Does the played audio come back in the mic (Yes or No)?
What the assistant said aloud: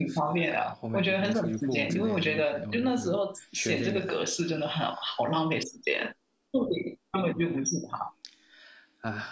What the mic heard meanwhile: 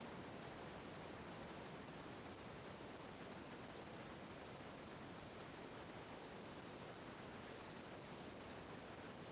No